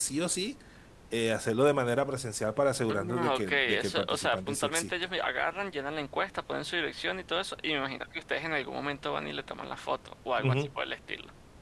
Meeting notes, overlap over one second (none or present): present